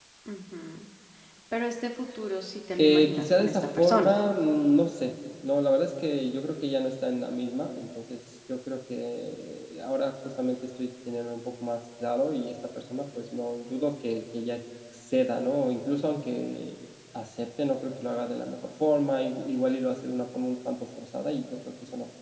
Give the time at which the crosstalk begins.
2.8 s

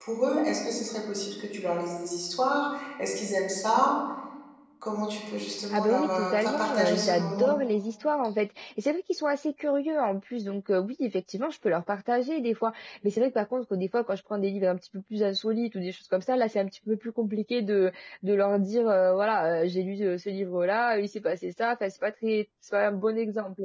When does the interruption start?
5.7 s

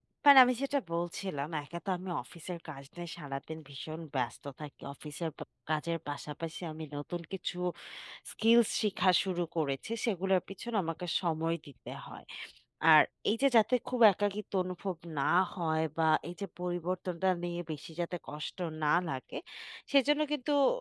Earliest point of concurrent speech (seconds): none

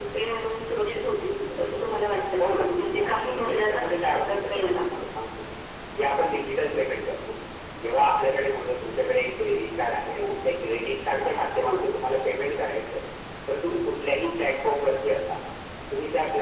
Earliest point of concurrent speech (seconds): 2.4 s

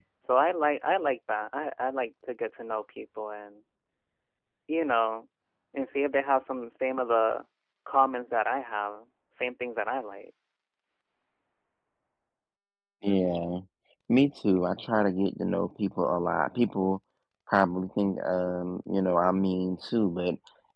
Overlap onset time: none

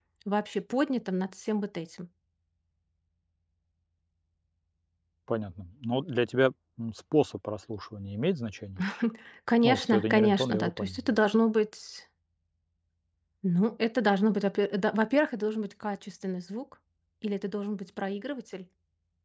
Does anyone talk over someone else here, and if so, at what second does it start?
9.6 s

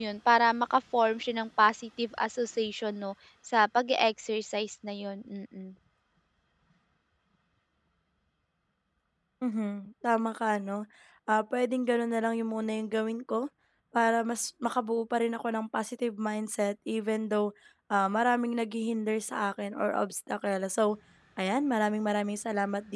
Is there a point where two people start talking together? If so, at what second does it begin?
none

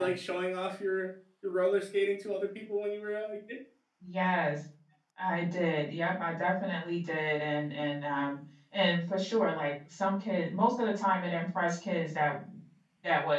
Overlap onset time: none

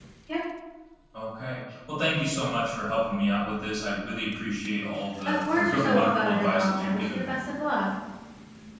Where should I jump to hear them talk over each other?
5.2 s

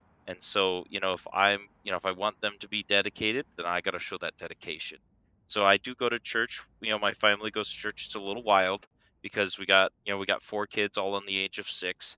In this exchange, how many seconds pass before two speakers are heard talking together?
none

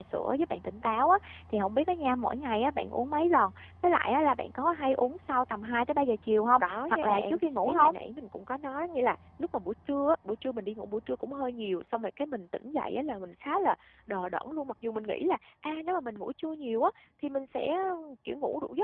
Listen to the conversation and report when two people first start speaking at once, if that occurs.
6.6 s

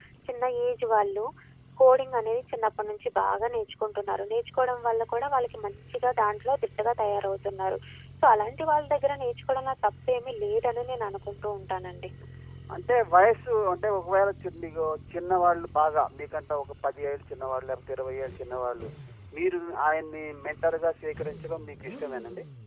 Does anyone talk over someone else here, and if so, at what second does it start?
none

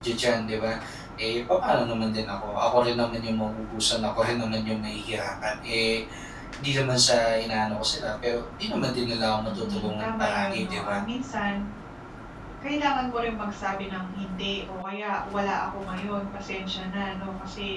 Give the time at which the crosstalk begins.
9.4 s

